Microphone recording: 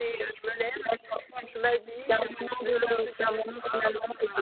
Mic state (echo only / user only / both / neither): echo only